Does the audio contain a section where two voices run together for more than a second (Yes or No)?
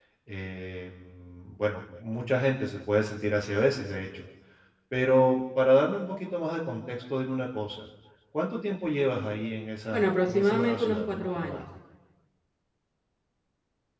Yes